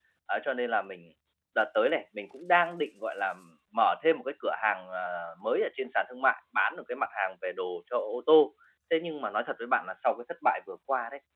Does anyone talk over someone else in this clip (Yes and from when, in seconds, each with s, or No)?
No